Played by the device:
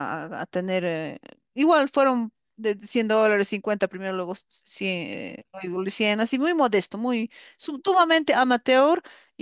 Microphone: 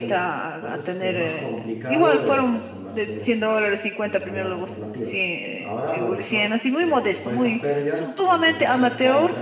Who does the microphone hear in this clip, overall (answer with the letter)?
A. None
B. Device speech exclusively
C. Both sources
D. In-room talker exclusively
C